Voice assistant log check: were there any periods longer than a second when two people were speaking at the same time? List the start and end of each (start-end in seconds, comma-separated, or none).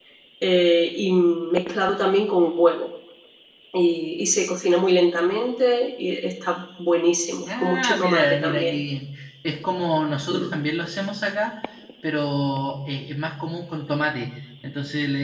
7.4-8.8